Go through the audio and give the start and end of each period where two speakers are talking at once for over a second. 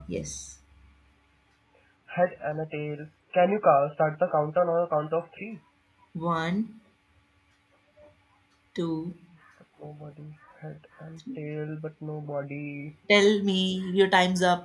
none

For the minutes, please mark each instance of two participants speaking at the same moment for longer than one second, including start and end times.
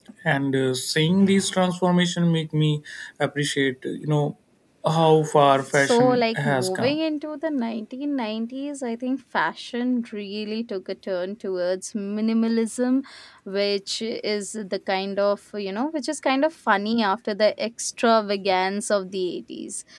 5.7-7.0

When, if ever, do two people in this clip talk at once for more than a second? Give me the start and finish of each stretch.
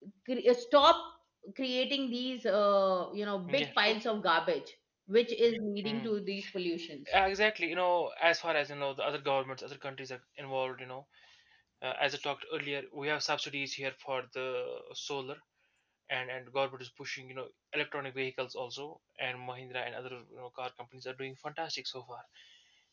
none

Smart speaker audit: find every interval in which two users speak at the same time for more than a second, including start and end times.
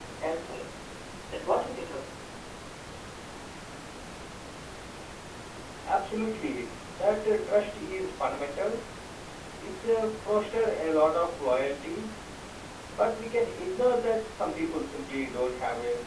none

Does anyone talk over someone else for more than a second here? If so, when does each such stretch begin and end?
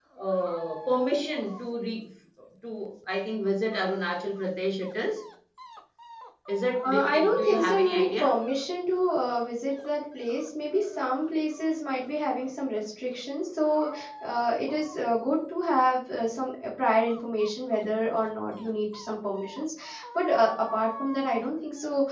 6.8-8.2

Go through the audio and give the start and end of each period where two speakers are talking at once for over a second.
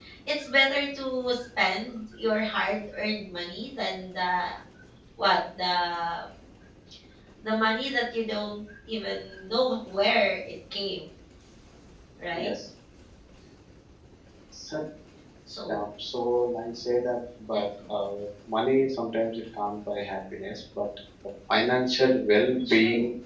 none

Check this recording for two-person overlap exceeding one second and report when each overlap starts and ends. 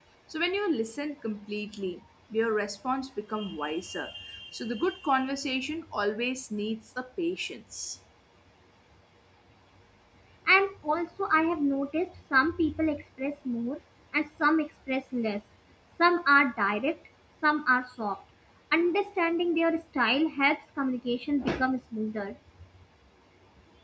none

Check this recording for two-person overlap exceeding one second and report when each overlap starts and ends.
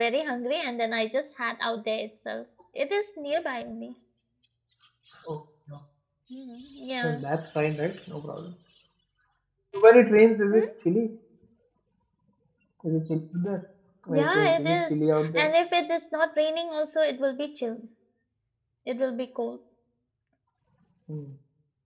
14.1-15.5

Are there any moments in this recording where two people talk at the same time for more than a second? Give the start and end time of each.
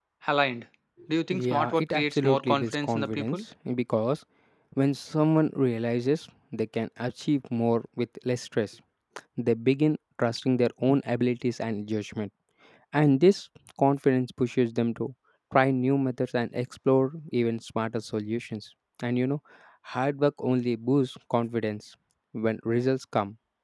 1.3-3.4

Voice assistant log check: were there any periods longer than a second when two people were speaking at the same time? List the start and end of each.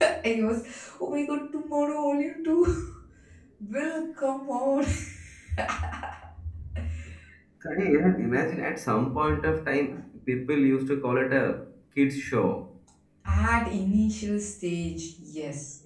none

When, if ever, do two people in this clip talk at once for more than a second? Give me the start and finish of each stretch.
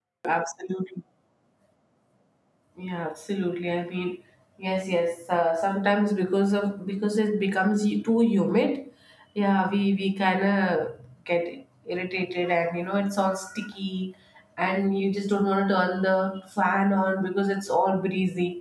none

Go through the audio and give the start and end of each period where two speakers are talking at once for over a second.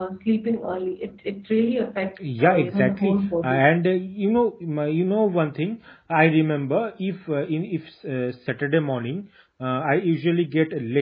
2.2-3.7

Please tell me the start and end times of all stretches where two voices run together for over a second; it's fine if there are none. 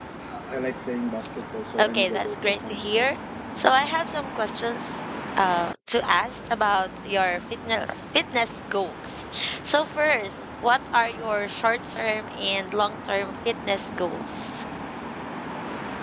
1.8-3.1

